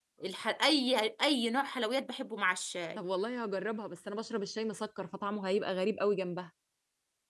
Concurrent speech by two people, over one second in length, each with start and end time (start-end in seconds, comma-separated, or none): none